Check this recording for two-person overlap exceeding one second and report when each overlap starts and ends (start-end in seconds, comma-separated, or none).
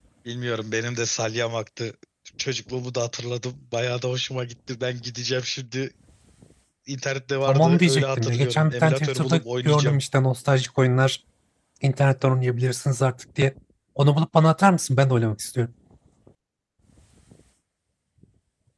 7.5-10.0